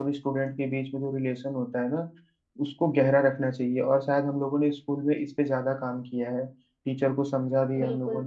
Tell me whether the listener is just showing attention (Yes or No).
Yes